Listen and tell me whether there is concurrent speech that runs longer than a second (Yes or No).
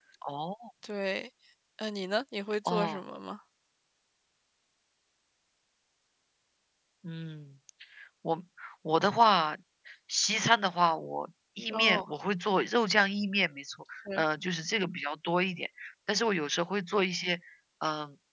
No